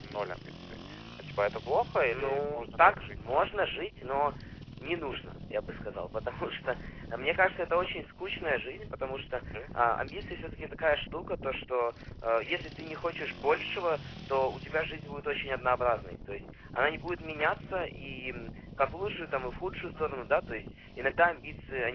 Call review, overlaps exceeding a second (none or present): present